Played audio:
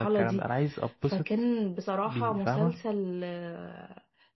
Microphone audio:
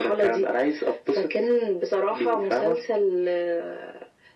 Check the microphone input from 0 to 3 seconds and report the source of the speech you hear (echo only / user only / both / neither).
echo only